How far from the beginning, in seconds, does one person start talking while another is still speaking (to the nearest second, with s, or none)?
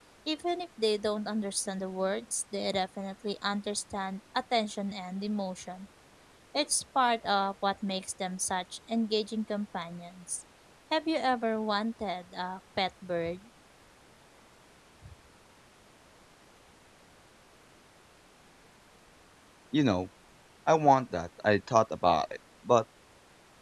none